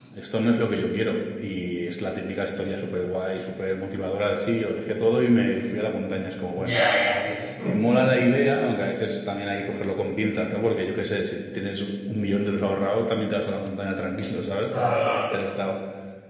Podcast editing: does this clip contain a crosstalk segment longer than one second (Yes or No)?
No